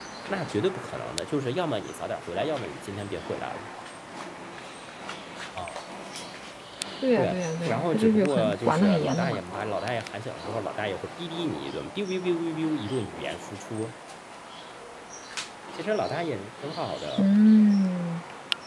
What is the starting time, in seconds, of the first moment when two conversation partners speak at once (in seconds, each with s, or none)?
7.2 s